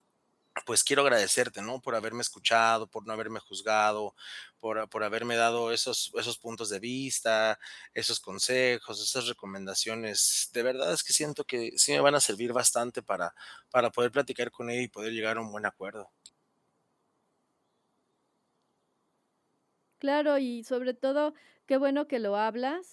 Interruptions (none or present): none